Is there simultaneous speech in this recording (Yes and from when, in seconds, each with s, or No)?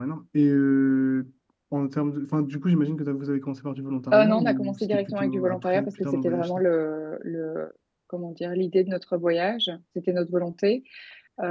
Yes, from 4.1 s